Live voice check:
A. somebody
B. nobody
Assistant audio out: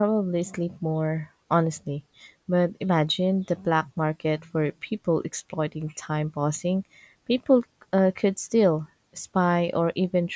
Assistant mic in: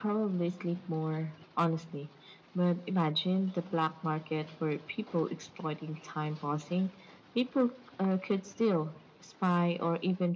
B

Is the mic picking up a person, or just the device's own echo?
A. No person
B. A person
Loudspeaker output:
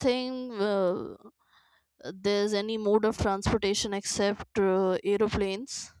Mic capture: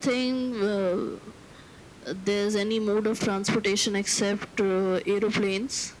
A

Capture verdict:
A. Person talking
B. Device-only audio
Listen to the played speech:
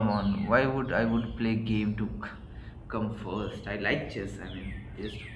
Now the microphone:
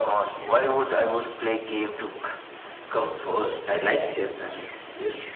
B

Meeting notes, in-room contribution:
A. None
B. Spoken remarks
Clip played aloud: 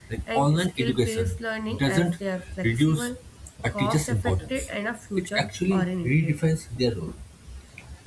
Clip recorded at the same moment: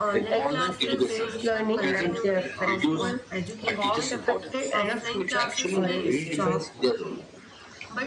B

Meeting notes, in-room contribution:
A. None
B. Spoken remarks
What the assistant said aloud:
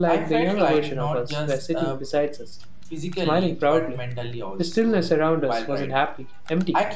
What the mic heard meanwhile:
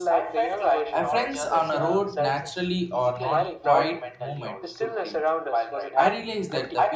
B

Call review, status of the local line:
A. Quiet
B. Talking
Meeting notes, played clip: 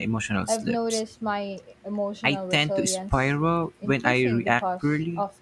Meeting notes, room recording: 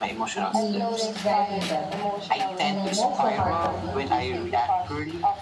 B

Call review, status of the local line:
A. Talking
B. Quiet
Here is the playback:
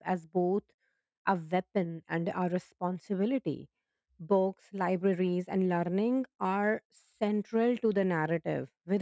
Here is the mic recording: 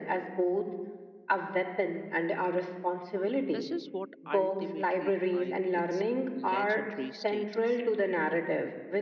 A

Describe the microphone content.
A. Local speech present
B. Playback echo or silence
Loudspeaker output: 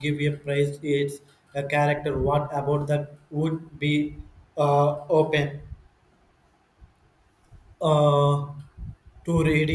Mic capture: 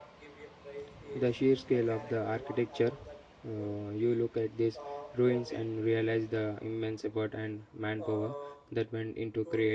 A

